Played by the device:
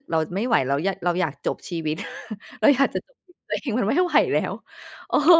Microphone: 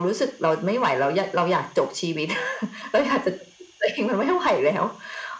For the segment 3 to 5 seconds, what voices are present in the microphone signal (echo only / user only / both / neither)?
echo only